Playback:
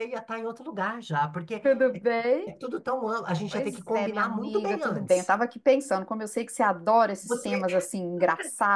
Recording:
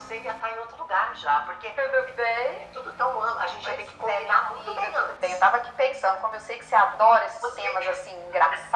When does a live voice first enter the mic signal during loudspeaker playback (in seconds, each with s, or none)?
none